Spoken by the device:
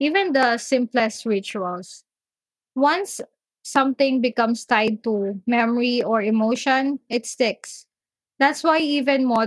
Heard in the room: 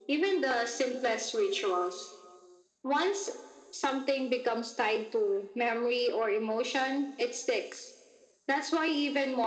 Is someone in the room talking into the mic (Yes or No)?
No